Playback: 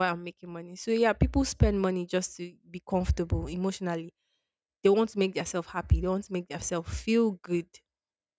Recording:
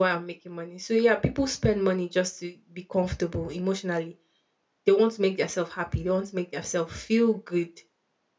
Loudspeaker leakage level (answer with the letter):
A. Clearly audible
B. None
A